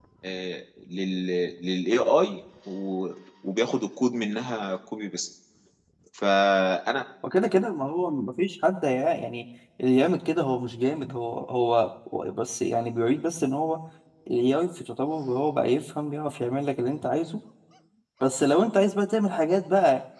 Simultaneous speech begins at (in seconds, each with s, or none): none